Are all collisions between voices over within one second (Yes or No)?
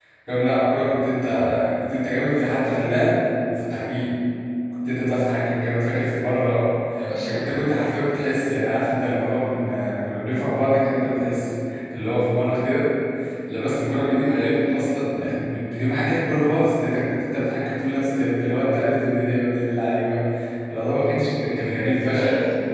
Yes